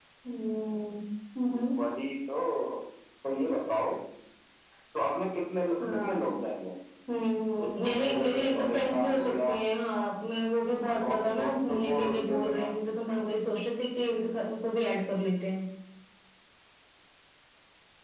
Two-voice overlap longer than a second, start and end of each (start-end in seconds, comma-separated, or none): 7.7-9.5, 11.0-12.7